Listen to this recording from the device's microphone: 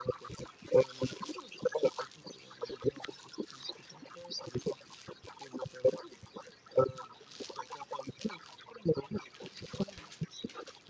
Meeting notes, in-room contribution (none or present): none